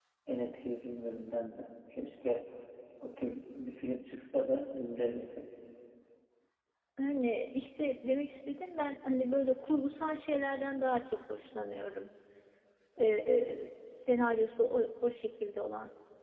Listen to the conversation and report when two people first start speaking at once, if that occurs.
none

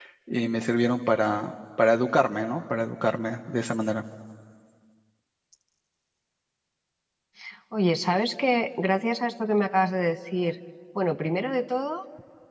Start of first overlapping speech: none

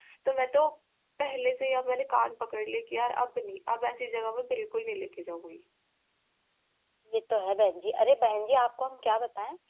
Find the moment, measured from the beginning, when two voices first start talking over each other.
none

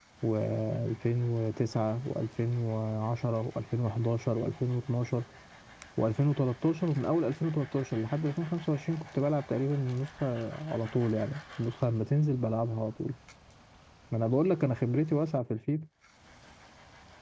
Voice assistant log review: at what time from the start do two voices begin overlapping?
none

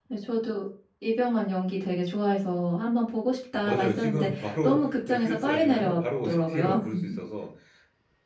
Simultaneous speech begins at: 3.6 s

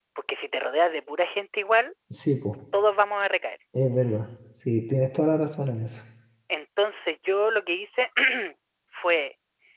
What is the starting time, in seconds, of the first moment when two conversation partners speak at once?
none

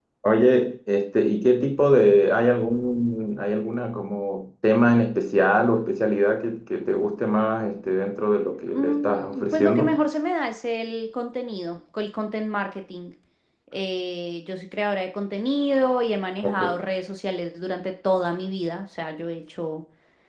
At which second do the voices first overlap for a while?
8.7 s

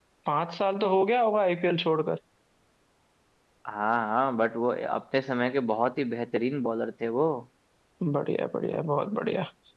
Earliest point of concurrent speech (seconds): none

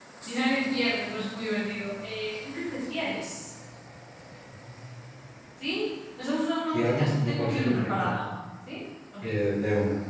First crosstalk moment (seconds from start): 6.7 s

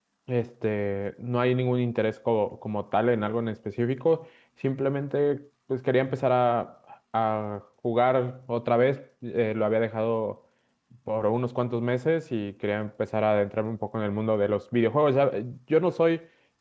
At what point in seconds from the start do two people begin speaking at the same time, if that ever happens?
none

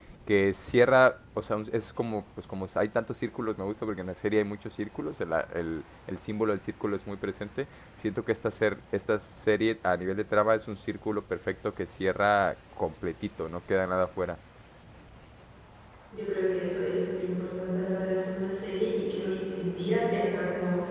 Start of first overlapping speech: none

